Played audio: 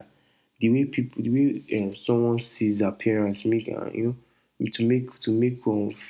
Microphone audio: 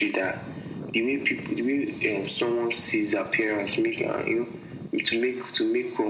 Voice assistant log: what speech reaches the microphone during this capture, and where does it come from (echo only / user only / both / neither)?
echo only